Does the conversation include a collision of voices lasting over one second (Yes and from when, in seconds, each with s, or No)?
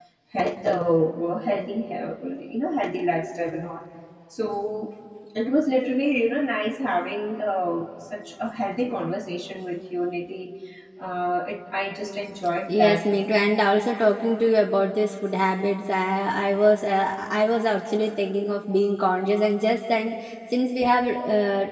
No